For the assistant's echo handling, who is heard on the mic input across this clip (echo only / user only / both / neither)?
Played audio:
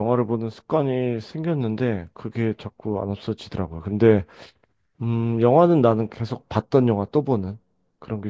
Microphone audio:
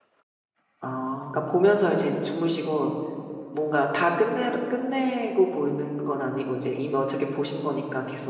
user only